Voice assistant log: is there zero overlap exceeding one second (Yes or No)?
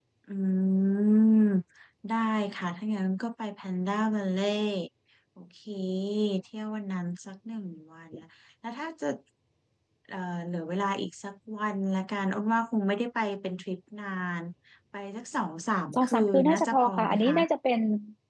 No